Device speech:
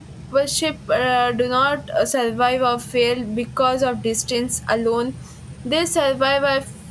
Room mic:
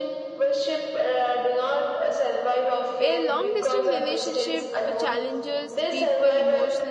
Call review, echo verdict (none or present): present